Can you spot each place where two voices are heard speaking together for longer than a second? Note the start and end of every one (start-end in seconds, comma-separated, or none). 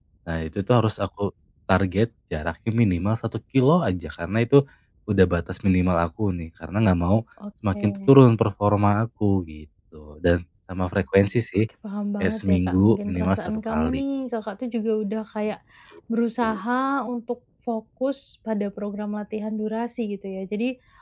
12.2-14.0